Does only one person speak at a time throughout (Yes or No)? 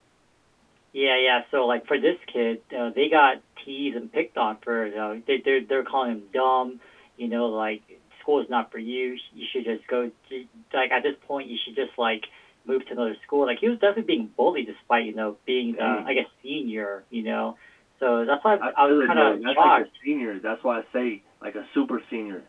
No